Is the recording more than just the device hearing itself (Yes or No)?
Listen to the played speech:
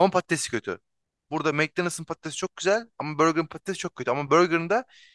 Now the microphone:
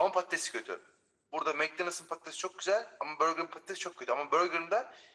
No